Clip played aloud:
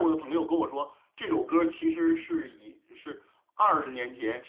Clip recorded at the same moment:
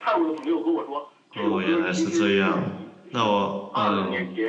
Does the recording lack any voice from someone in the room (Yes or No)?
No